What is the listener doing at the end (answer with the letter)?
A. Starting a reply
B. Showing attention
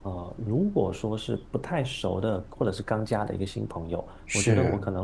B